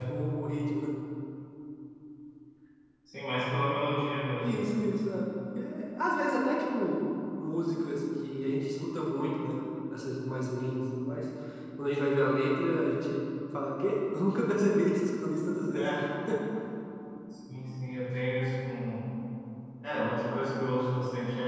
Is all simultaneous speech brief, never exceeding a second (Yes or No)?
Yes